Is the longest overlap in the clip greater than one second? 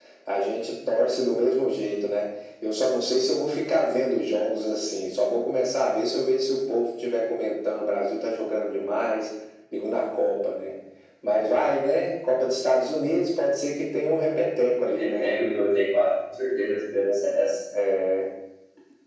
No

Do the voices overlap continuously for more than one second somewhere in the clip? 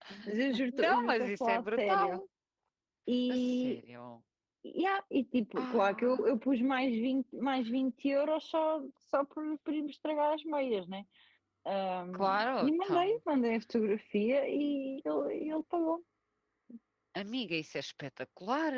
Yes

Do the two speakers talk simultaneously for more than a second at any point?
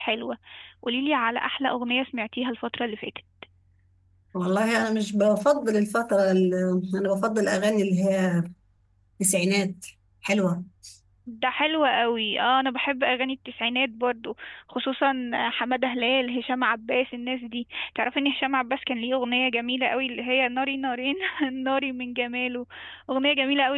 No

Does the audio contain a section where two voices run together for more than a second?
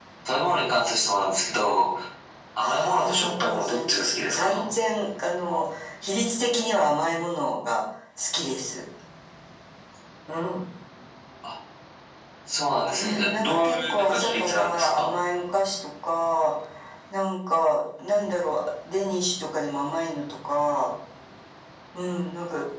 Yes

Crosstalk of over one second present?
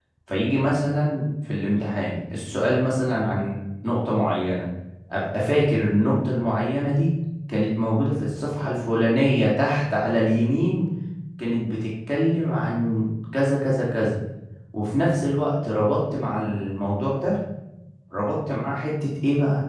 No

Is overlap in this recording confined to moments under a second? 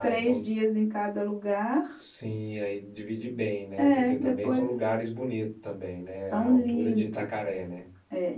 No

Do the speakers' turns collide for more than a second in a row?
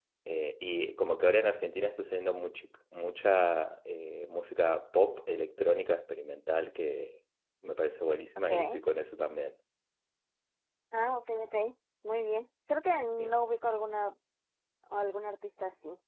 No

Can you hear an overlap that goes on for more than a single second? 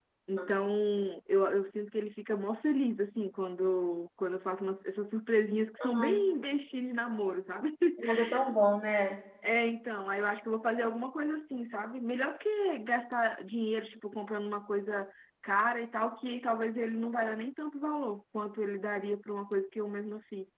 No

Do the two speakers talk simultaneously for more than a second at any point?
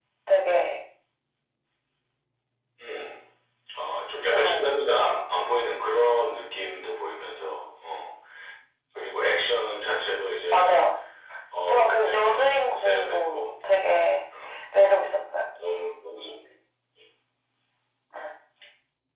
Yes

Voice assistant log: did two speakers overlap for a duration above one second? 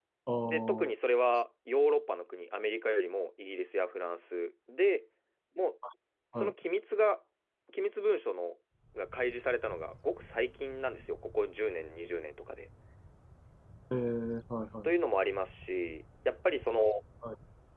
No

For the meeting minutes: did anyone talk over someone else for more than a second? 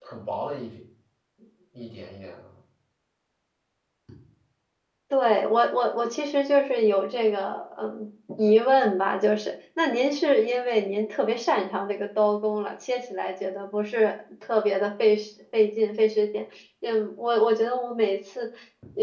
No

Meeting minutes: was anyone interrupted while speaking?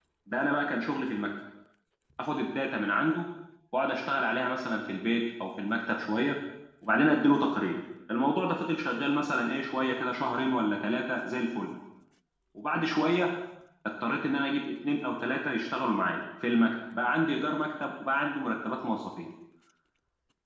No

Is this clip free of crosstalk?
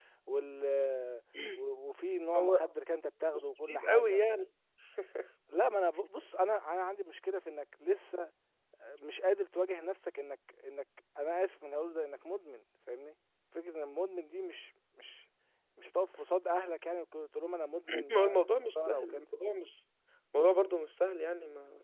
No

